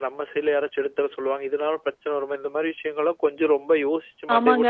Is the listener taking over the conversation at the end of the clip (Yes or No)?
Yes